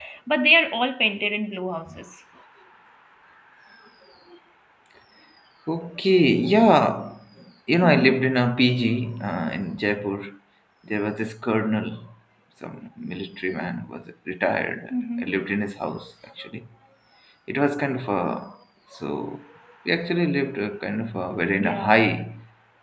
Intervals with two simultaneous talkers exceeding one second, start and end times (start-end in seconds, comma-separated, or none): none